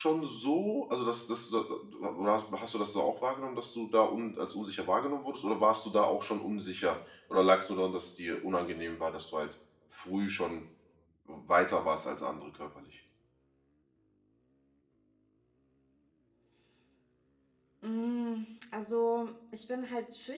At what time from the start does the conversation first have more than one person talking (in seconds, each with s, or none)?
none